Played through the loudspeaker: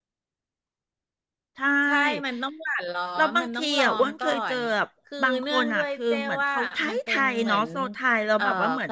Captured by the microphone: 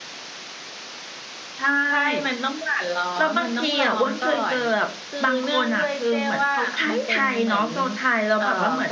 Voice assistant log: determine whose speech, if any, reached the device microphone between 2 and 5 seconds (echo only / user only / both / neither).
echo only